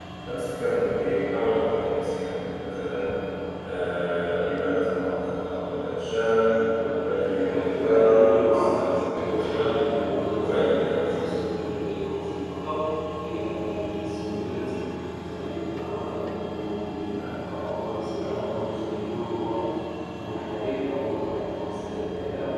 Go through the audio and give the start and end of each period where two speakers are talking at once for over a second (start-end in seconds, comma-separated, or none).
7.4-9.7